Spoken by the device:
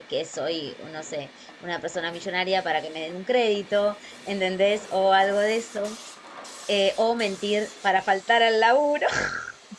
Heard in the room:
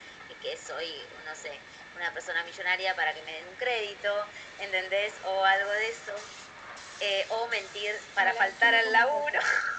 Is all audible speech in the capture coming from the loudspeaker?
No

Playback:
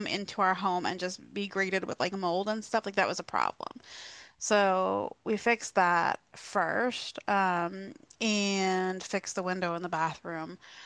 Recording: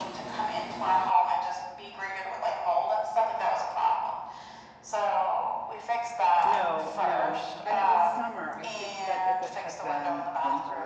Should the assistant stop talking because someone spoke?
Yes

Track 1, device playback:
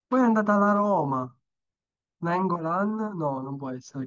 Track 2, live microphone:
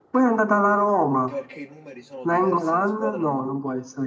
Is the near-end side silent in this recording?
No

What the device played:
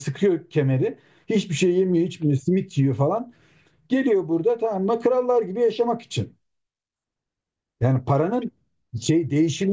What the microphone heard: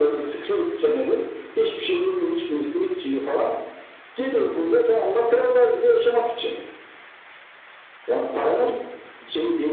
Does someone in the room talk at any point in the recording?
No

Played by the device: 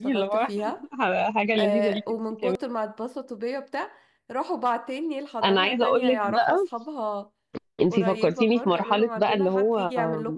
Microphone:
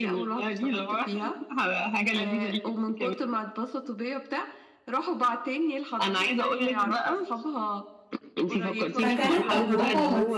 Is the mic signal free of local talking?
No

